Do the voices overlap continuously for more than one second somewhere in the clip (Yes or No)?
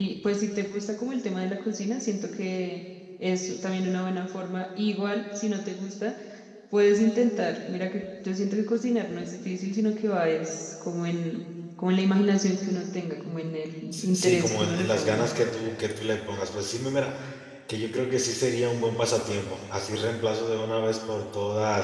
Yes